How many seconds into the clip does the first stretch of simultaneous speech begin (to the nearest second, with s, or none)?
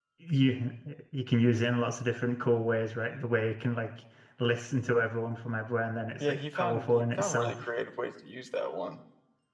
6 s